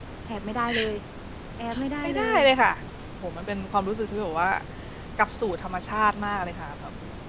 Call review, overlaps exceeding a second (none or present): none